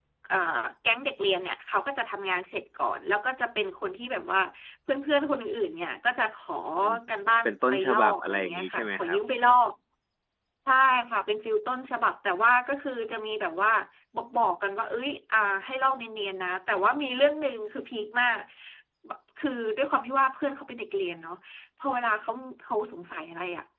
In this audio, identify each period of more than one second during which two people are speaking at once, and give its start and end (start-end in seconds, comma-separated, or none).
7.5-9.2